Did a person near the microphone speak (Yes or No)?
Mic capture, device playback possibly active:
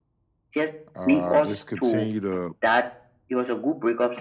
Yes